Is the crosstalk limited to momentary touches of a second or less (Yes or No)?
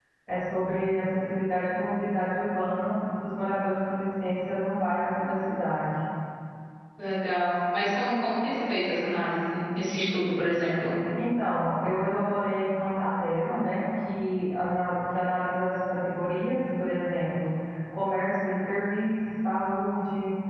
Yes